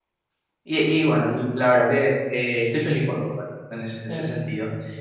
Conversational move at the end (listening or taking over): listening